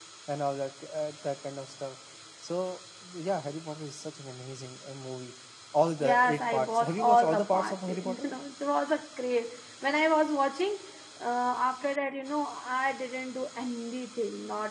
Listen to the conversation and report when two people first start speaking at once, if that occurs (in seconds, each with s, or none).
6.0 s